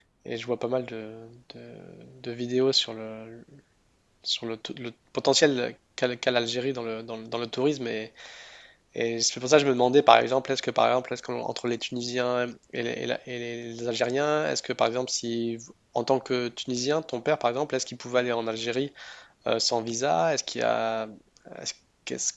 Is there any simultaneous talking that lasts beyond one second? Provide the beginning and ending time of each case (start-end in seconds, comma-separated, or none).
none